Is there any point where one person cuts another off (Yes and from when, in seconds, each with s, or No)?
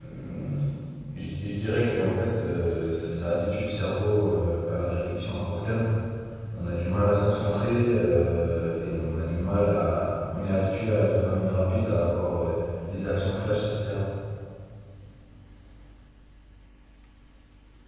No